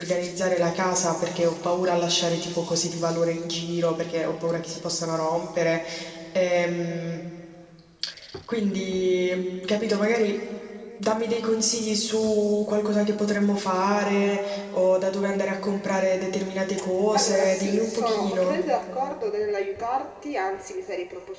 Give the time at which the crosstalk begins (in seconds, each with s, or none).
17.1 s